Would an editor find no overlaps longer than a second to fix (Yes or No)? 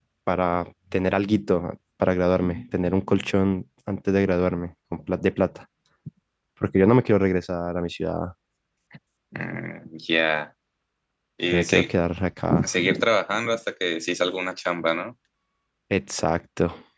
Yes